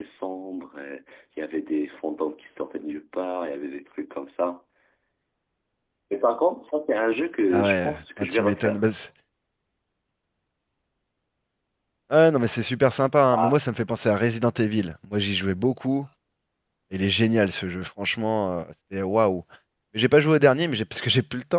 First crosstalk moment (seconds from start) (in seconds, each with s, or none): 7.5 s